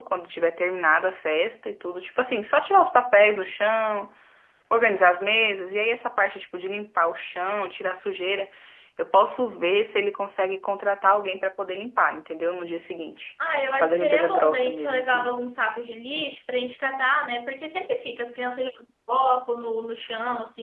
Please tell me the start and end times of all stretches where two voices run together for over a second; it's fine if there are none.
13.8-15.3

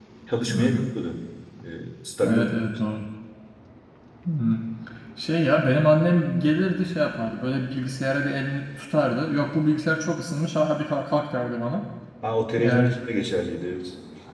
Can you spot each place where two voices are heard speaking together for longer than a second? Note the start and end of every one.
none

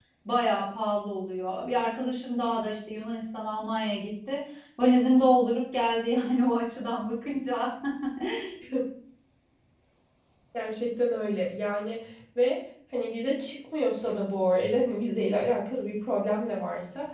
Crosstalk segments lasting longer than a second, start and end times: none

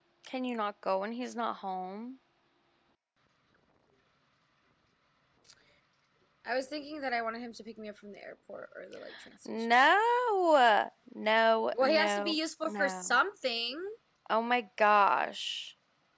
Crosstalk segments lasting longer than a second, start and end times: 11.8-13.2

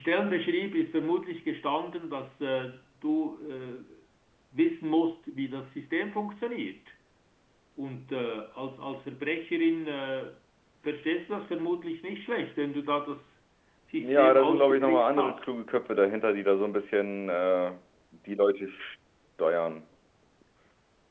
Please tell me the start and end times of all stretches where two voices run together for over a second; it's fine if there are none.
14.0-15.4

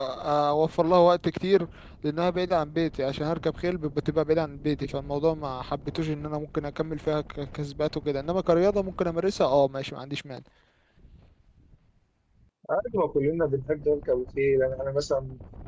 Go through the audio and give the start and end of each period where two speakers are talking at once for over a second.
none

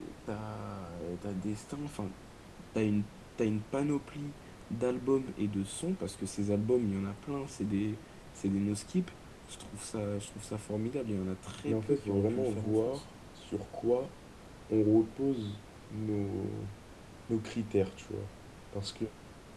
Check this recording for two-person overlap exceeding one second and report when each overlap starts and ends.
11.7-13.0

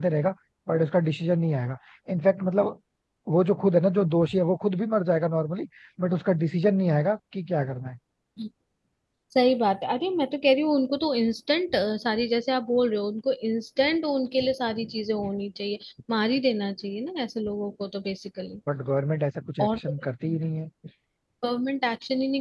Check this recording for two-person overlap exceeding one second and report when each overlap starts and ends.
none

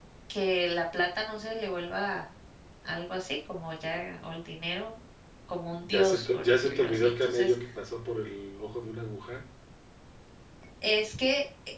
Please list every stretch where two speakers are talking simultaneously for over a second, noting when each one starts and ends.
5.8-7.5

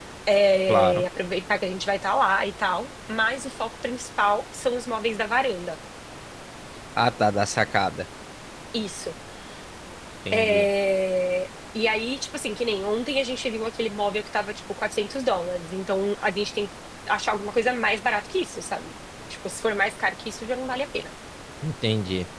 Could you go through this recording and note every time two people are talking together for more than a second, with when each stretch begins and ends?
none

